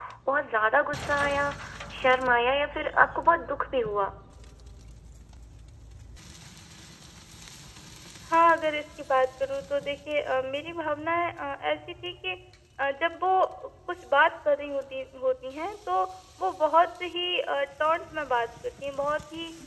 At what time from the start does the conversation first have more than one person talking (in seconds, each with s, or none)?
none